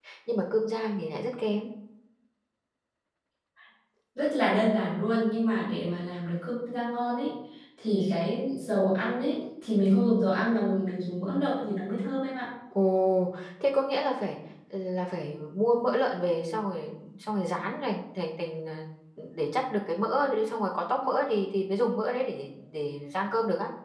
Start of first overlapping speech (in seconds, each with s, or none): none